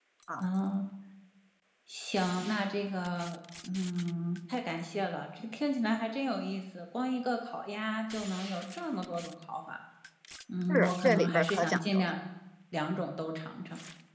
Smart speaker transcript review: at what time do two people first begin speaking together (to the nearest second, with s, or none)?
11 s